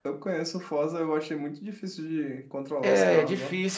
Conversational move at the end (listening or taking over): taking over